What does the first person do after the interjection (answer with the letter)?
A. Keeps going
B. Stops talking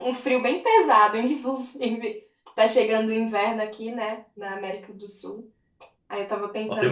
A